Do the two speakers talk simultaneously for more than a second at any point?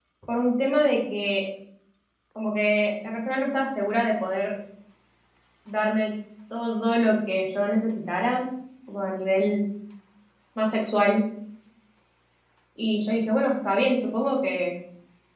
No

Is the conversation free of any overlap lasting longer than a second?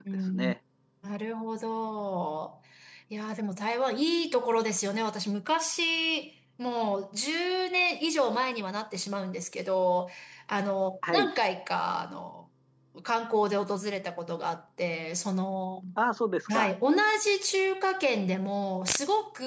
Yes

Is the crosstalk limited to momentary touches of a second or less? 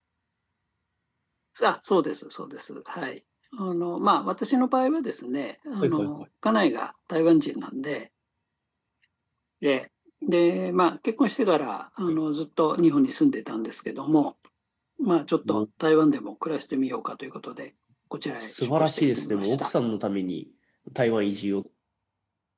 No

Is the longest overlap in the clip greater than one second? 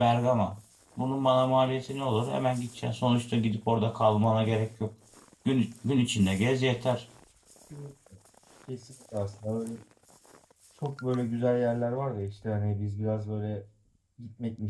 No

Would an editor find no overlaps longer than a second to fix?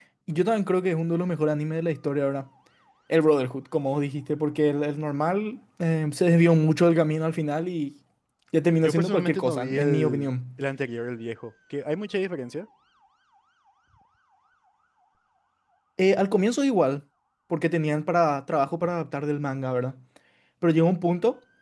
No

